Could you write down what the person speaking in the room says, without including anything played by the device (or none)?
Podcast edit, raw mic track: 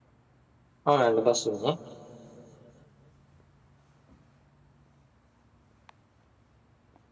అవునండి. బస్ ఉంది.